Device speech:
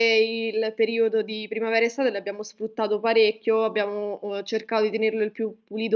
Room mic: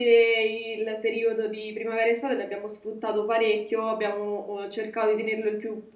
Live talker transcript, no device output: none

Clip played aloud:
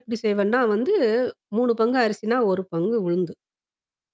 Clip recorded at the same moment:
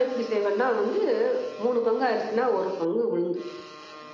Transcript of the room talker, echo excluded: none

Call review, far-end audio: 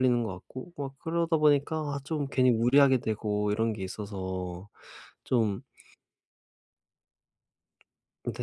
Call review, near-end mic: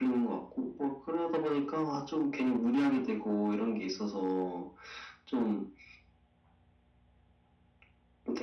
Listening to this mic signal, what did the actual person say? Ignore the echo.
none

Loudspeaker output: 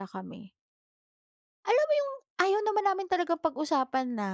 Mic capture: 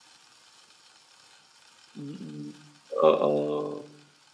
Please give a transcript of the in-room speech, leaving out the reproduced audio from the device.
Mm, oo.

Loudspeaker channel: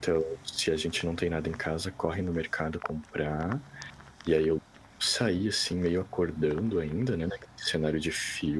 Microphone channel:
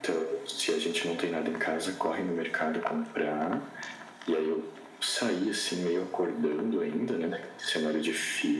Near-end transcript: none

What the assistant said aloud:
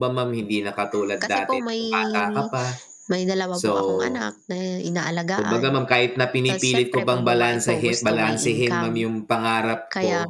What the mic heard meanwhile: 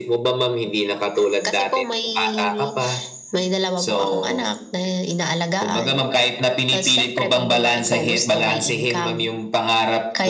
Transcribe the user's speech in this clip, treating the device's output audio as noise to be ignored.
none

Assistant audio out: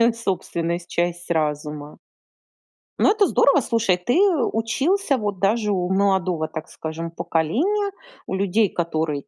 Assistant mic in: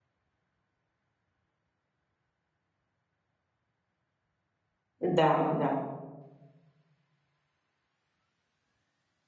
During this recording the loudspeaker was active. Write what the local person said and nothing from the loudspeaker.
Да да.

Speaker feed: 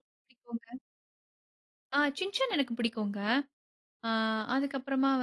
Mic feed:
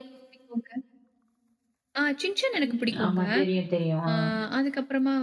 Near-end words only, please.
ம், ஆமா. தெரியும், தெரியும். ஆ.

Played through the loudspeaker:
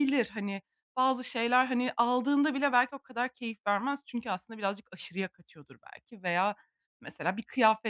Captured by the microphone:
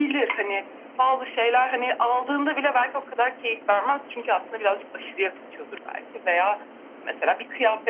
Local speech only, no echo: none

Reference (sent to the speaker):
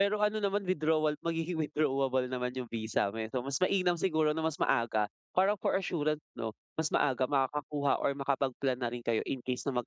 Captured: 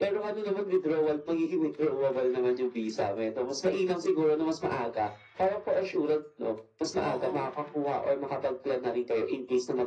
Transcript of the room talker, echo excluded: Oo.

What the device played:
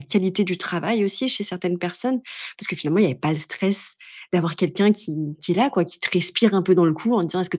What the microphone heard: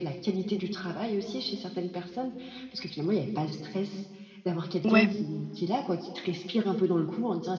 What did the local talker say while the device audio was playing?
Ouais.

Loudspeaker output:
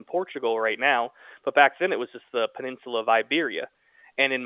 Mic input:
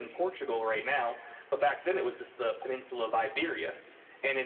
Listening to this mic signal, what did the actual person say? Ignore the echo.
none

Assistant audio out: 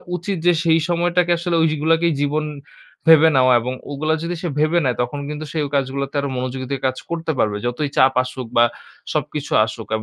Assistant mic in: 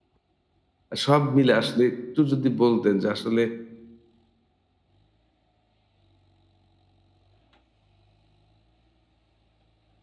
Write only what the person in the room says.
আ সব মিলে আসলে একটু যদি বলতেন। যে আসলে

